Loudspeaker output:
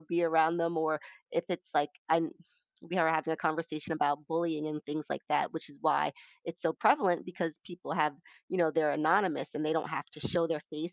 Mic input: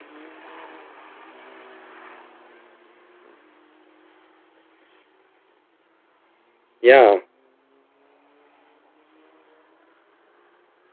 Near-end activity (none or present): present